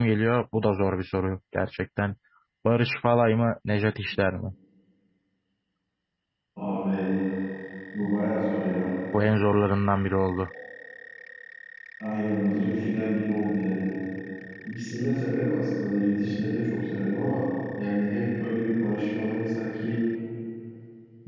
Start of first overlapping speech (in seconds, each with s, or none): none